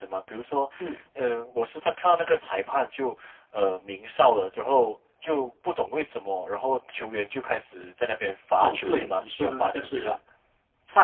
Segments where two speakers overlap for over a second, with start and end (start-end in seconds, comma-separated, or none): 8.6-10.2